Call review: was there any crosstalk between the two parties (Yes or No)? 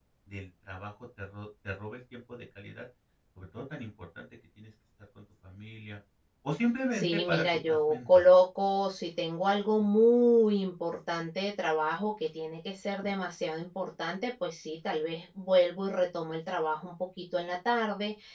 Yes